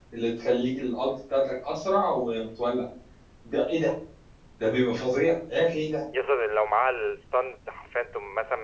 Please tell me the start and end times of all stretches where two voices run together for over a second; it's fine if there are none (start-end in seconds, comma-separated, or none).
none